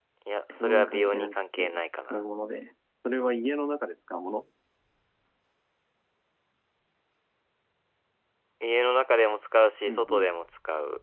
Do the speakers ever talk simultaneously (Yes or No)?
Yes